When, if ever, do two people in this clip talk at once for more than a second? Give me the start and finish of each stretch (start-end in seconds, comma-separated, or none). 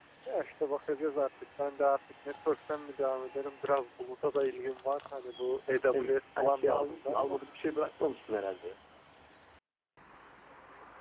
5.7-7.4